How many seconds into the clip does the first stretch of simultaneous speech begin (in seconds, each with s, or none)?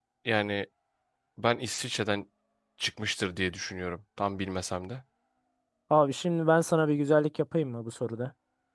none